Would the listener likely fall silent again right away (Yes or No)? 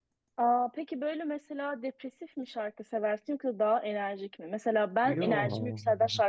Yes